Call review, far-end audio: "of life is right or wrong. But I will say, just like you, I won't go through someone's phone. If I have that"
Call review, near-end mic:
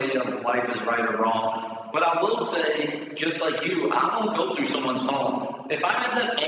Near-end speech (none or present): none